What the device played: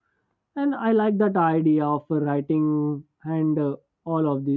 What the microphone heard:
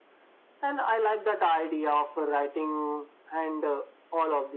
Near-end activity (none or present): none